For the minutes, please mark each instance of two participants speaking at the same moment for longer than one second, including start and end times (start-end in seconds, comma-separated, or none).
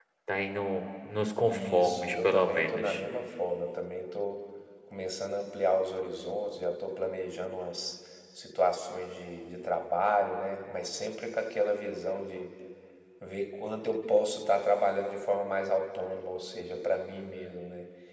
1.4-3.0